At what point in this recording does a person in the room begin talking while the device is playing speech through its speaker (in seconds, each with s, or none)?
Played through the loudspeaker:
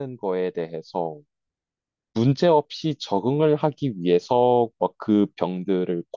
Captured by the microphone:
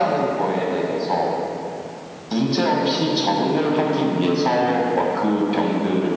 none